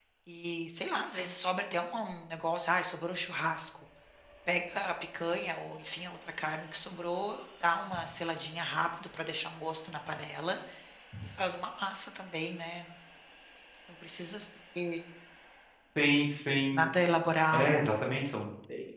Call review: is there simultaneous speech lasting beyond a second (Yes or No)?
No